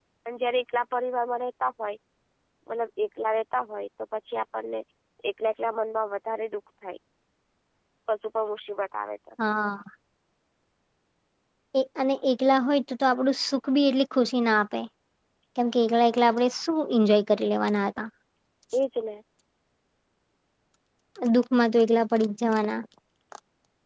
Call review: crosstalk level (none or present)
none